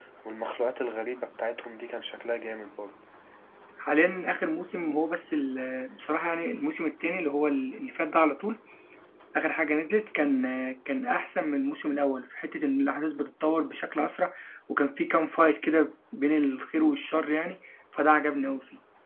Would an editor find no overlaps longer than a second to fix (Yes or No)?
Yes